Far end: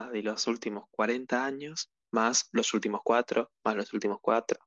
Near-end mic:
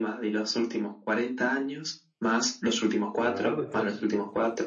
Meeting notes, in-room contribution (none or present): present